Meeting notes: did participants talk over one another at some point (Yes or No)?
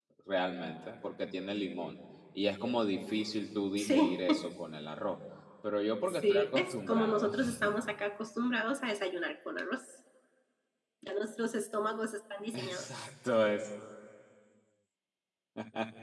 Yes